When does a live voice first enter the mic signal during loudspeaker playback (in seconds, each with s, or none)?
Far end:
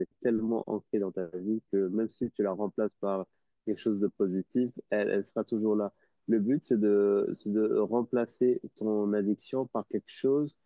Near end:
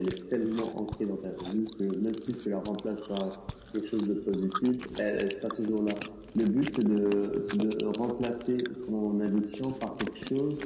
none